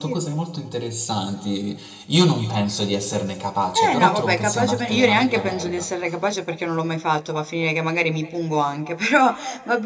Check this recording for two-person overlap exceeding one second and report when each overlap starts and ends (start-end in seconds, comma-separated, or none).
3.9-5.9